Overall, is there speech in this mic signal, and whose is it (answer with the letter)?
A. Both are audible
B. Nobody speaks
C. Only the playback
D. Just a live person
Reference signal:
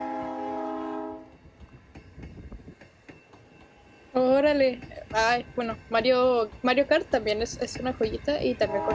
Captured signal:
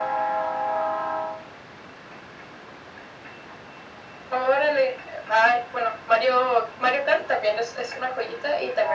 C